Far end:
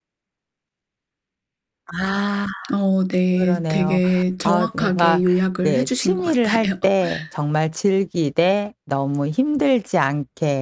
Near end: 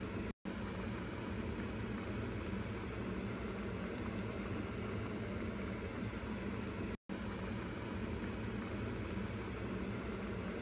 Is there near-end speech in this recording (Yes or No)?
No